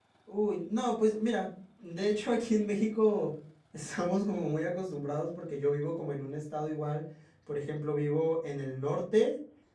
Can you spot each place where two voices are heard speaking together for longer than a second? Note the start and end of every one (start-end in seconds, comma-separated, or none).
none